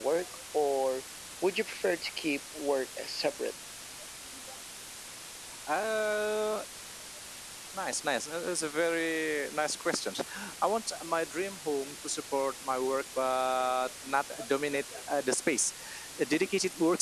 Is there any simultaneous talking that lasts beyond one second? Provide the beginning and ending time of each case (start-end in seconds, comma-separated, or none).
none